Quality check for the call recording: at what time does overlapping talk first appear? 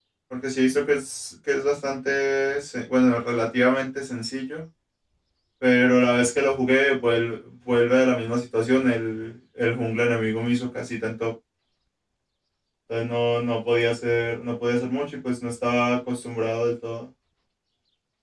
none

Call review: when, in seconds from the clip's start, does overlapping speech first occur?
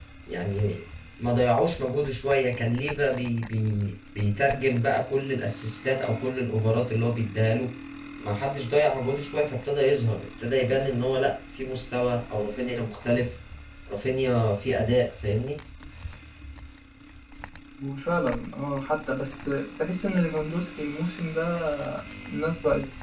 none

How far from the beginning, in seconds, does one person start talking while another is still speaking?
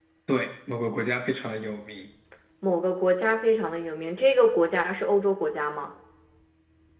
none

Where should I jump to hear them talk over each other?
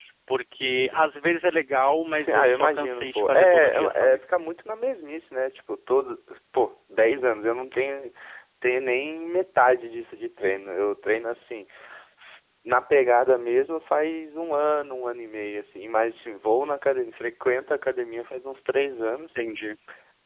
2.2 s

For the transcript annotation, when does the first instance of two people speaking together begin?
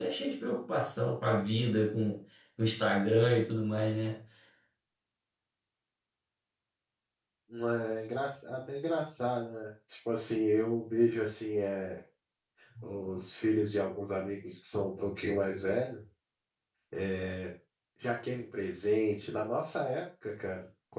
none

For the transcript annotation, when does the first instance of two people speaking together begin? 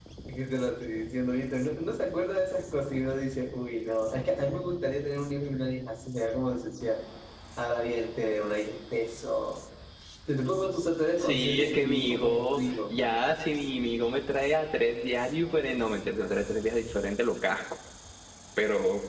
11.1 s

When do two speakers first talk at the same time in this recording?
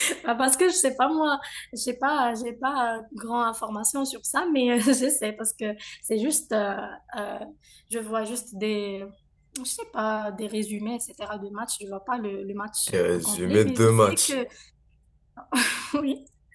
12.9 s

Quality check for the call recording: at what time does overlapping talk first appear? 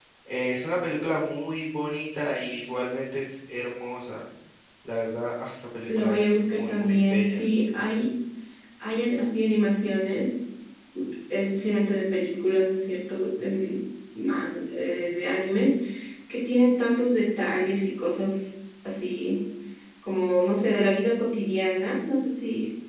5.9 s

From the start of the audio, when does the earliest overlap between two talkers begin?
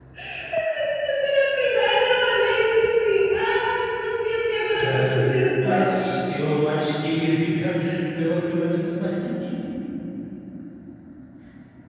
4.7 s

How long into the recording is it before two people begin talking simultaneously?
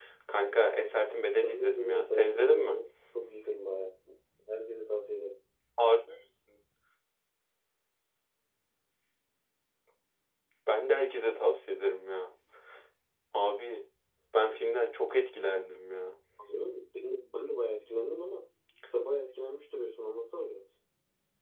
1.4 s

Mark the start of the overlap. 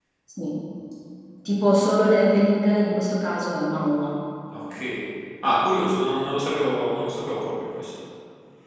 none

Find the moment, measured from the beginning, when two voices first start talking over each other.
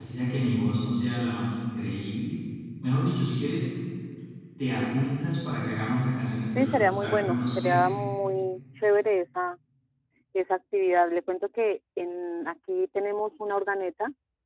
6.6 s

